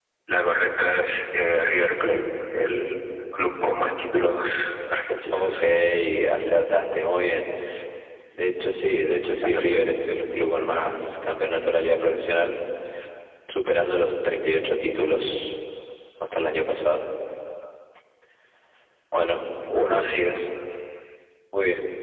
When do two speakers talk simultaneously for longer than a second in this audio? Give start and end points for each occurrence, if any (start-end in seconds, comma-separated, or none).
none